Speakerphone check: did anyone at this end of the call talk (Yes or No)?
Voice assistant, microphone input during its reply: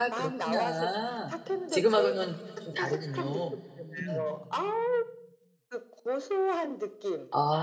Yes